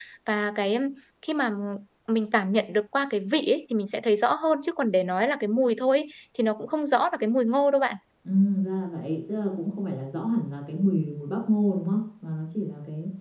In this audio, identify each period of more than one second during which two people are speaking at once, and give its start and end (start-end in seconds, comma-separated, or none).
none